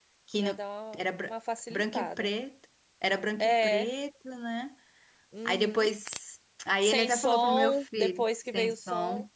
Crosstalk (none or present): present